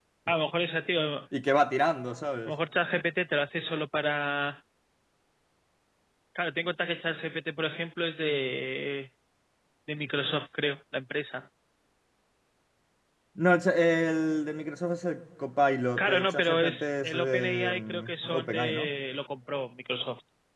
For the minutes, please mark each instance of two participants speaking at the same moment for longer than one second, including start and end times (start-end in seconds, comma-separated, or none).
16.0-18.9